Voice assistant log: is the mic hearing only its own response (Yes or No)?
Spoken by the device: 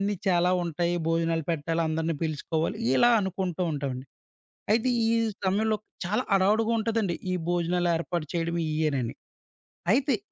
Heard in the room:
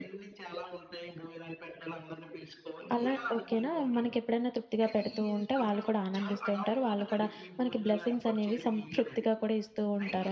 No